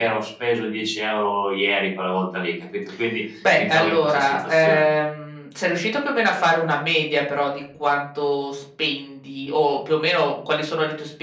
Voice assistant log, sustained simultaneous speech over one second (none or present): present